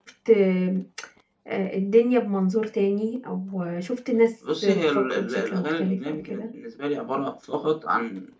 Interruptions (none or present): present